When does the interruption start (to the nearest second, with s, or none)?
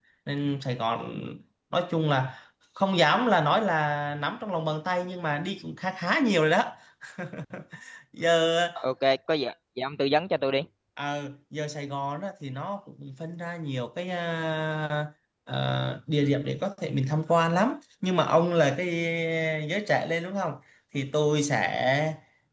none